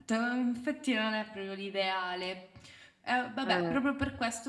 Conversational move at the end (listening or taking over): listening